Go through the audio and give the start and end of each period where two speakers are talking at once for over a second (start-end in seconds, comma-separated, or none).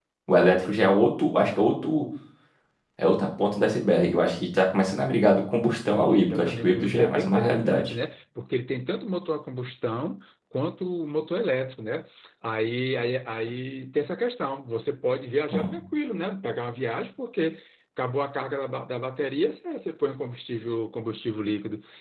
5.9-7.9